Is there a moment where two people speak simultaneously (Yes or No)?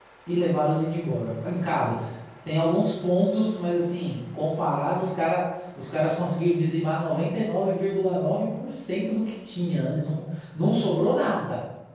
No